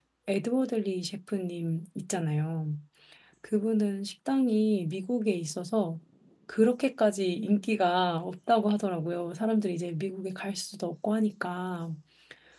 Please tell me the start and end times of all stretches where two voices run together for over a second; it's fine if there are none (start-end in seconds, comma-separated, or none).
none